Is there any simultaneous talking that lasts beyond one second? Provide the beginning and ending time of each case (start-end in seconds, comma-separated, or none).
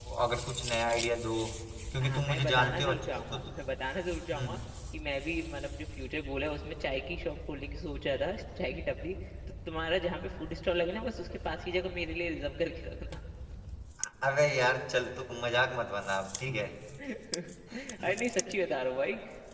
2.0-3.7